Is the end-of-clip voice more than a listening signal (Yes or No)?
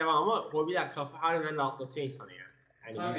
Yes